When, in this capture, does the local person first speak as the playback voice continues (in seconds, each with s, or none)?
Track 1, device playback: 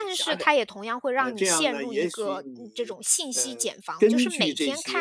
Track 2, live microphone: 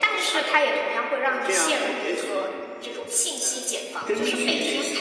none